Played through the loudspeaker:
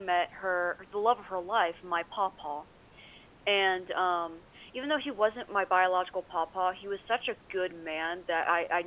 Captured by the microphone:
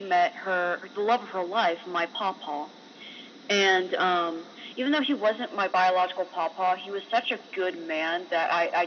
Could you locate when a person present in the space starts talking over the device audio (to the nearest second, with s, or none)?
none